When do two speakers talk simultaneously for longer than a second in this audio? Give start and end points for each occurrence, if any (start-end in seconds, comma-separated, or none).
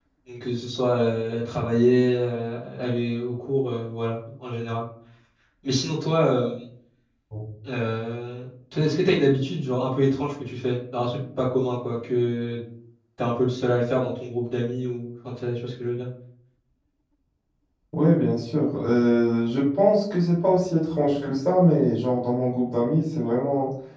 none